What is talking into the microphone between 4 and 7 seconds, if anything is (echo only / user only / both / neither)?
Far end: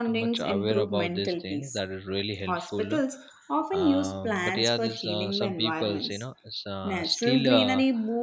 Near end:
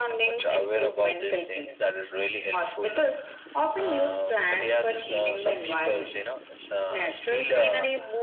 echo only